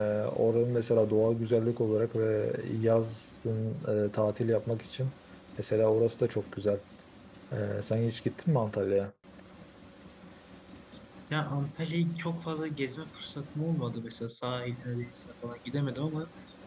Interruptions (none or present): none